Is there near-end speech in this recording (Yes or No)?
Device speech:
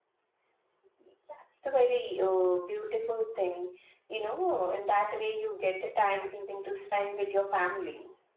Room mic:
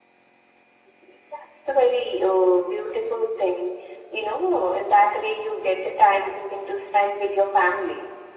No